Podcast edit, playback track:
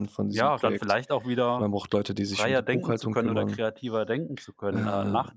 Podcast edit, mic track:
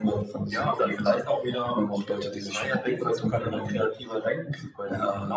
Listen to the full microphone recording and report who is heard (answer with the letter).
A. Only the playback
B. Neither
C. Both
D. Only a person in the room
A